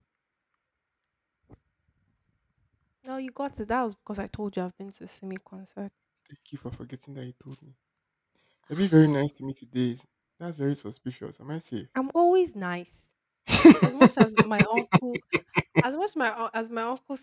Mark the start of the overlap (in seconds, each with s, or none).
none